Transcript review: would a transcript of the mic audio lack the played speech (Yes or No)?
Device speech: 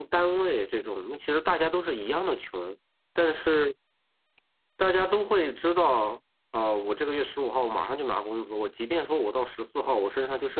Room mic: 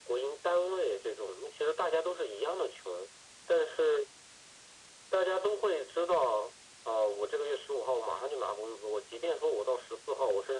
No